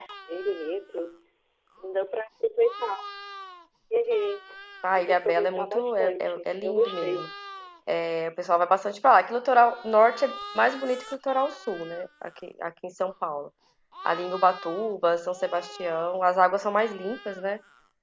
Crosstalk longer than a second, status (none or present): present